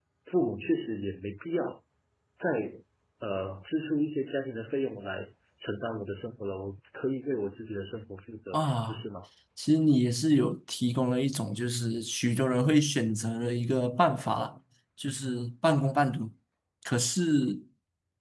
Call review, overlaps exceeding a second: none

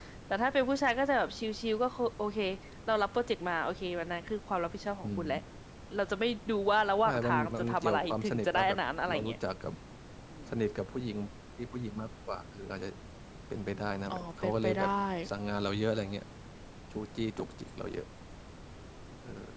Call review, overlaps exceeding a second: present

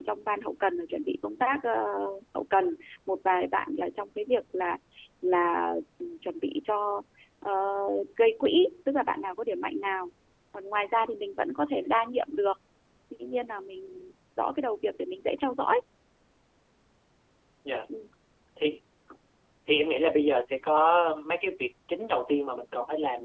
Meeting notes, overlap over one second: none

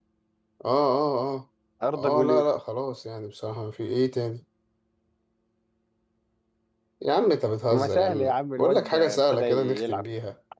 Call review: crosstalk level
present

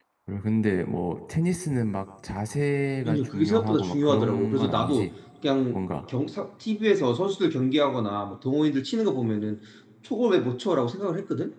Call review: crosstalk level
present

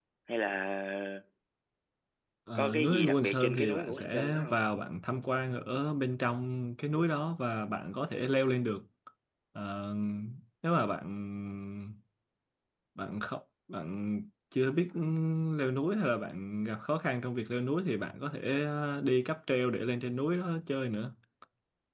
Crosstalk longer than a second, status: present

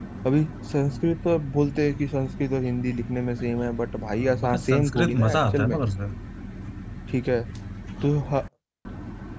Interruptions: present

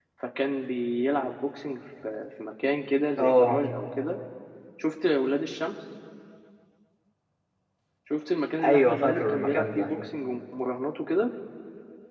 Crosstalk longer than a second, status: present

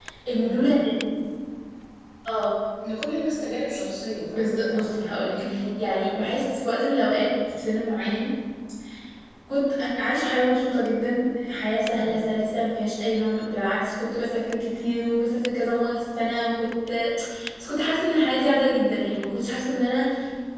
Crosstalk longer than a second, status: present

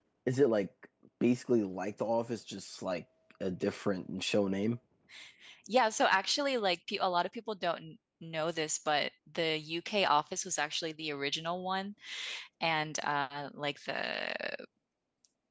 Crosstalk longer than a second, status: none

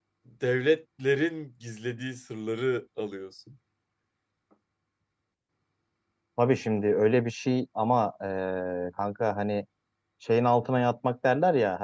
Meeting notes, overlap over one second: none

